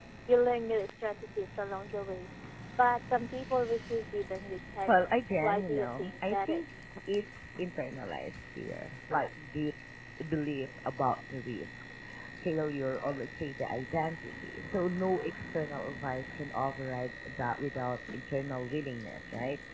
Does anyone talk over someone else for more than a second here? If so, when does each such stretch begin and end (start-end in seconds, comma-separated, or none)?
4.9-6.6